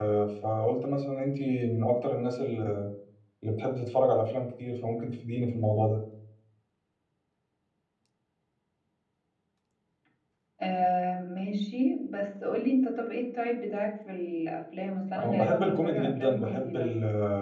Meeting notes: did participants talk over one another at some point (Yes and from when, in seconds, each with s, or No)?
Yes, from 15.2 s